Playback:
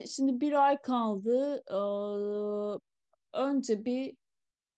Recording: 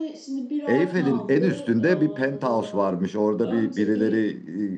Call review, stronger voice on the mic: user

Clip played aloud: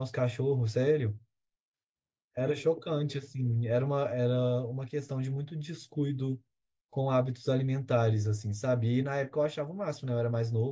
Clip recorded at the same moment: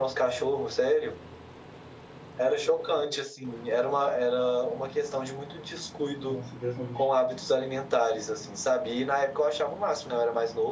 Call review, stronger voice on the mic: echo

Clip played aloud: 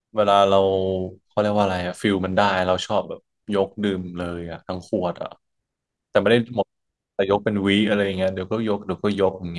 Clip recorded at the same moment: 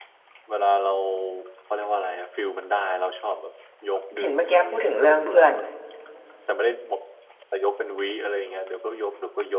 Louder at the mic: user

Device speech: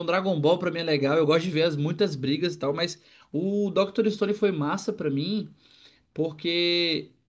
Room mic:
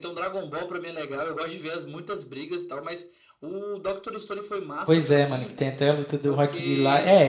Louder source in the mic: user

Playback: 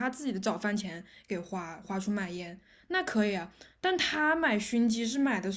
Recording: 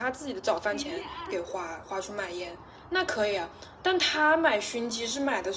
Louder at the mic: echo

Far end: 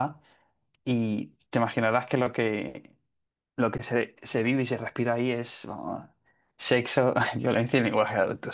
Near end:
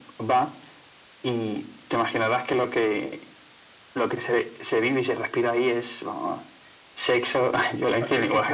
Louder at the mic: echo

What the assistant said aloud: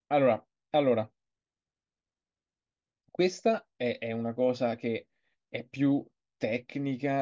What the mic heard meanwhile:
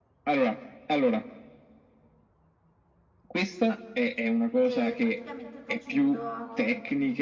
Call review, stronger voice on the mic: echo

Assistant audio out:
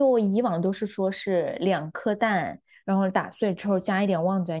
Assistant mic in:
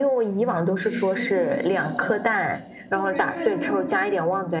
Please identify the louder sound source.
echo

